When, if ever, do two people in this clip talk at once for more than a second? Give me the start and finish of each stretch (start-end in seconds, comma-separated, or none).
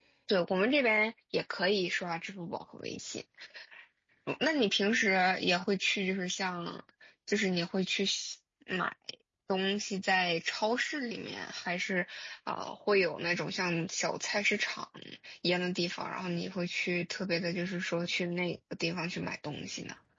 none